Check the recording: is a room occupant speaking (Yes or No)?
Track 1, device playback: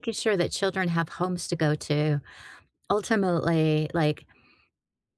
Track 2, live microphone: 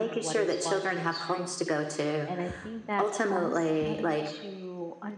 Yes